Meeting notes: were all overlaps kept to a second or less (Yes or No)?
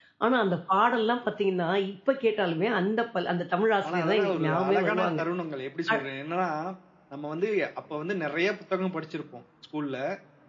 No